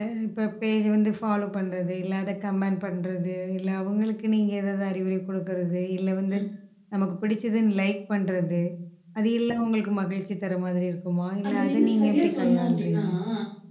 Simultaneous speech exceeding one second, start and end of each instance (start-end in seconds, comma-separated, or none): 11.5-13.0